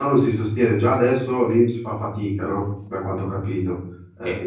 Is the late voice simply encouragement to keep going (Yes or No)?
No